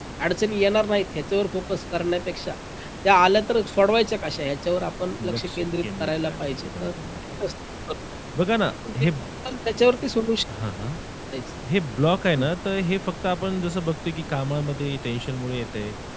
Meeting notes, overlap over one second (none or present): present